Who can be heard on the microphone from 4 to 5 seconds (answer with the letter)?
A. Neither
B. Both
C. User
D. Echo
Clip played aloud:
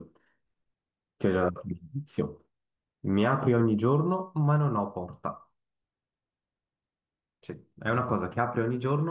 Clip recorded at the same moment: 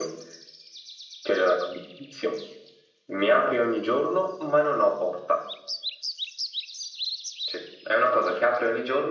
D